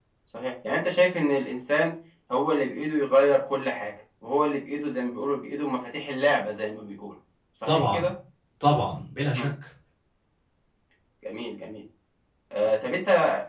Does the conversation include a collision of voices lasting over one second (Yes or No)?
No